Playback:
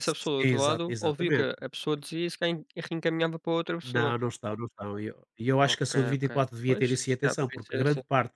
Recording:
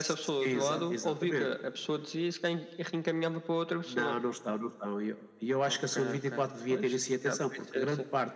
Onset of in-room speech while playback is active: 0.5 s

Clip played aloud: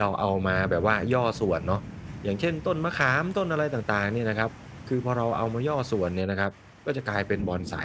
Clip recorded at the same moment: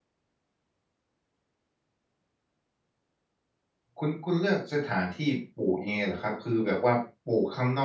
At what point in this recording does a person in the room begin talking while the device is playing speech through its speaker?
4.0 s

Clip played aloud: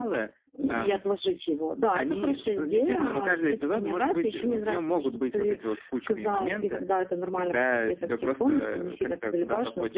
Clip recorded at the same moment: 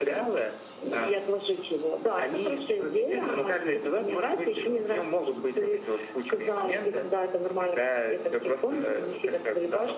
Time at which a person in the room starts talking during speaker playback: none

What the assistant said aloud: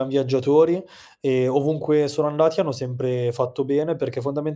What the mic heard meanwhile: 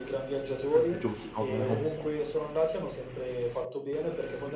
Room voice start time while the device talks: 0.7 s

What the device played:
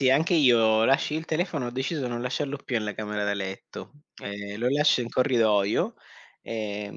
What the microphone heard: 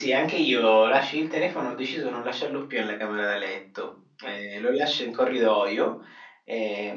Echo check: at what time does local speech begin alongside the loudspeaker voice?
none

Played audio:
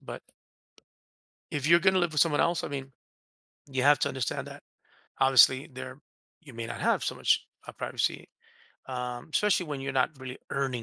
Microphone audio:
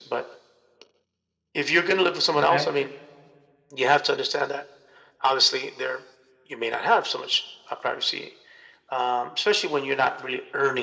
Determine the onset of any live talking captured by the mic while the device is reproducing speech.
2.4 s

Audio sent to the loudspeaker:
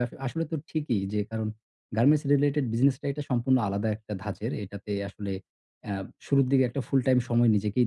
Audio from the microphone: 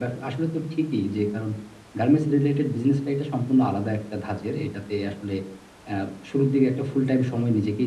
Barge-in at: none

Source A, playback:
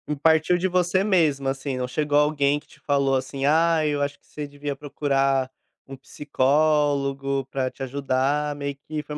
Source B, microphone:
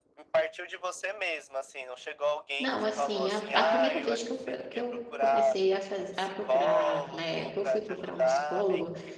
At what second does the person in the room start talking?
2.6 s

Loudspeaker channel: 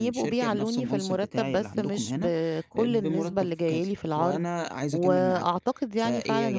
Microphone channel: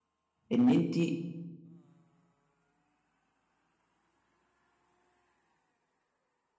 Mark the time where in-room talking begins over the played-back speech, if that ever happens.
0.5 s

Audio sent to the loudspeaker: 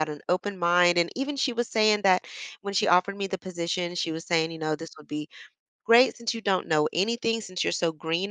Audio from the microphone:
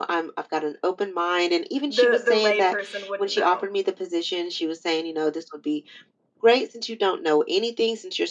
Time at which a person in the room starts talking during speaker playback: 1.9 s

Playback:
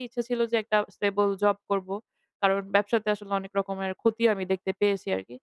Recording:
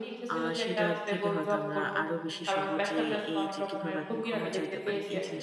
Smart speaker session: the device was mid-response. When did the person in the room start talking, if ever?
0.3 s

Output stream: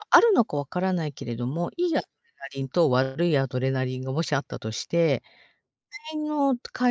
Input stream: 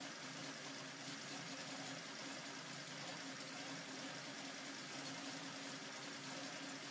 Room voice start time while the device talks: none

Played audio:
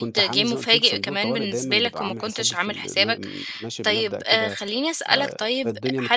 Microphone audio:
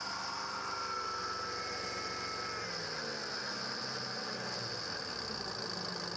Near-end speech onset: none

